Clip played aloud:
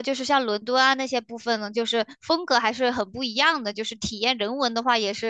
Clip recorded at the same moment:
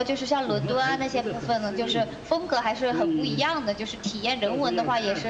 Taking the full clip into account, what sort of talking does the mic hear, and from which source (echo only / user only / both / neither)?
both